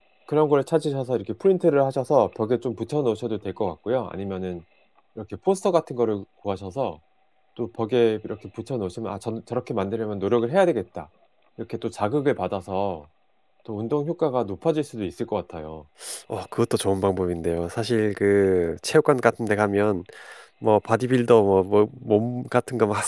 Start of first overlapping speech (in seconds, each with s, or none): none